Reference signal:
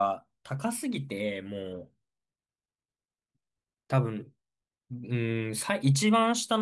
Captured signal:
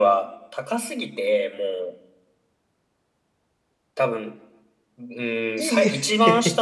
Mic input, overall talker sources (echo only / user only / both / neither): both